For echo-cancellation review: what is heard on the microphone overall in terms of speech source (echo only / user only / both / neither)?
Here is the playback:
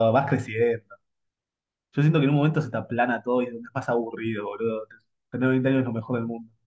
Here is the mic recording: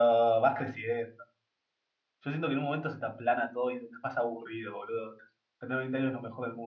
echo only